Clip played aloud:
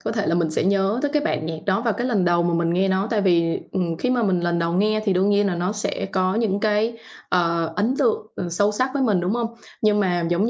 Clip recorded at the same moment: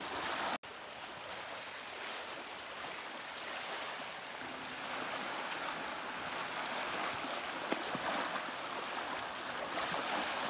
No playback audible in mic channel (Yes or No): Yes